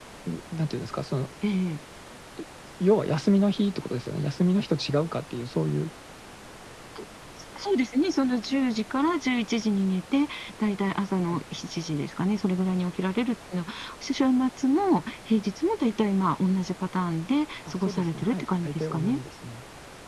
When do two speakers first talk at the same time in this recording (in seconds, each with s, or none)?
17.7 s